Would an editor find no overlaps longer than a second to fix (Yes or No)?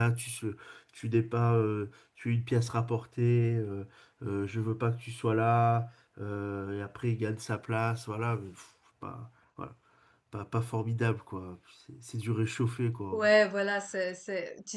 Yes